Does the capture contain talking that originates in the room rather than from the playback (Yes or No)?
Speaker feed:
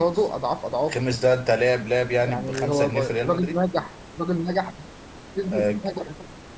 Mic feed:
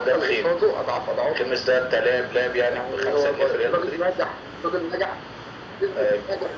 No